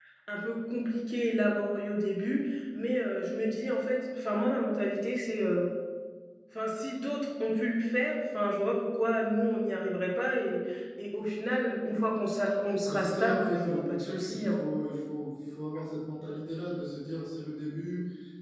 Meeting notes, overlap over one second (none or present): present